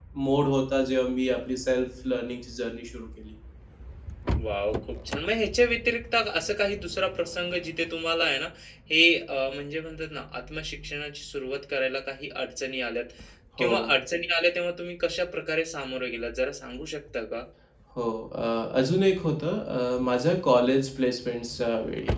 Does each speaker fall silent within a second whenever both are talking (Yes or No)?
Yes